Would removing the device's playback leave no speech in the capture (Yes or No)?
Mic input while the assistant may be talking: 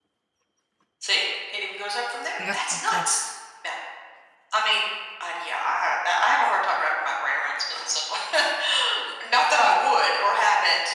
No